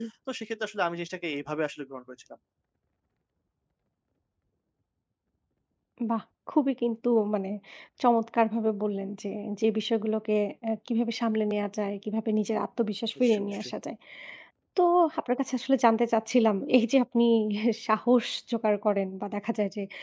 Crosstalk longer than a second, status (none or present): none